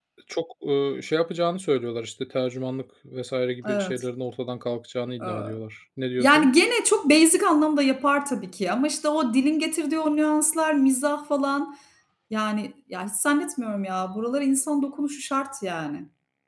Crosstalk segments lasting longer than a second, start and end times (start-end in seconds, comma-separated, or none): none